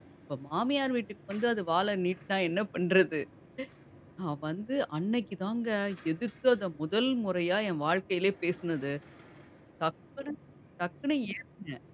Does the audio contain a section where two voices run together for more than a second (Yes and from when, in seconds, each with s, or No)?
No